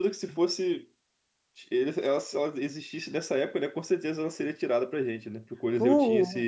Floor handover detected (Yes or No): No